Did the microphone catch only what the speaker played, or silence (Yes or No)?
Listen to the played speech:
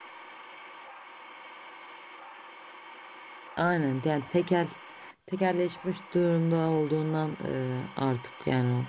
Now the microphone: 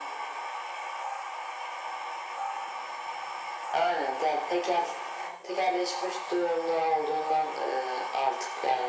Yes